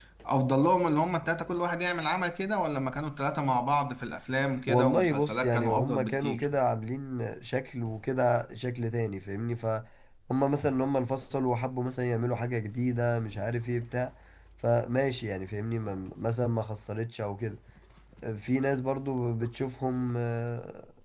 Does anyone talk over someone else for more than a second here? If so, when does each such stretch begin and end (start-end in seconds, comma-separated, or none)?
4.7-6.5